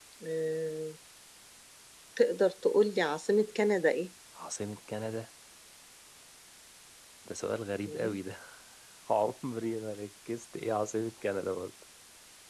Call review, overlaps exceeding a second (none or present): none